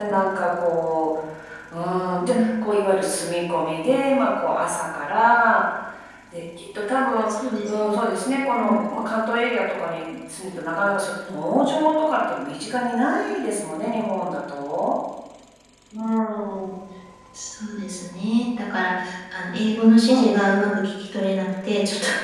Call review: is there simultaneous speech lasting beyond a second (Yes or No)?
No